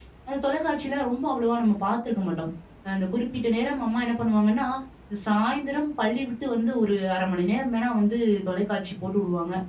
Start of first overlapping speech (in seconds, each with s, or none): none